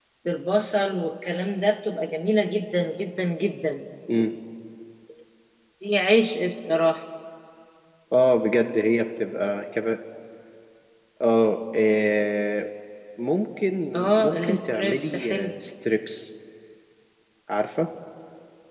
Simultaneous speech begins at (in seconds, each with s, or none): 14.2 s